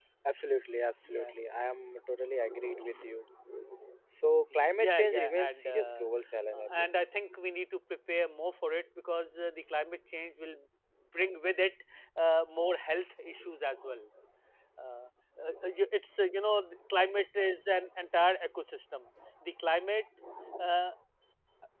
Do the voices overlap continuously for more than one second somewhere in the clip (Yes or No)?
Yes